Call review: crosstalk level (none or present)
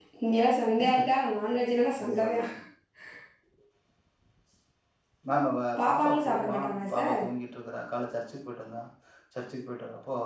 present